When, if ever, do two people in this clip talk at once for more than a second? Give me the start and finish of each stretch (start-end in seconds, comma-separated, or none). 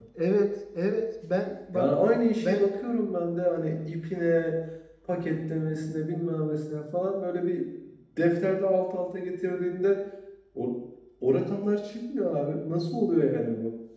none